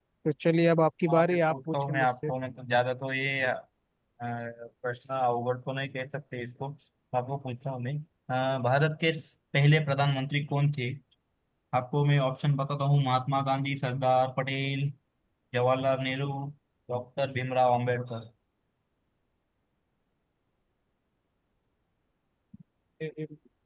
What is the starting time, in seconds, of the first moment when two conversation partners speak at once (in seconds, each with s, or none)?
1.1 s